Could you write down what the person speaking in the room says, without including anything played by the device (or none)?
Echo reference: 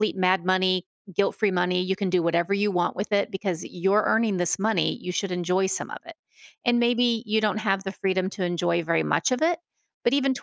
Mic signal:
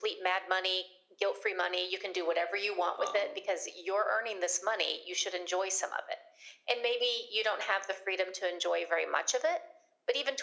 um